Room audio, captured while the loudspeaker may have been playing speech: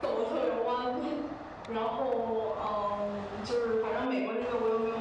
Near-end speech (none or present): none